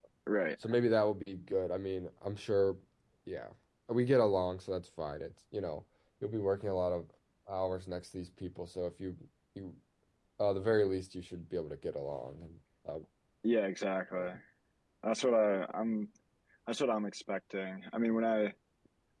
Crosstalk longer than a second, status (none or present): none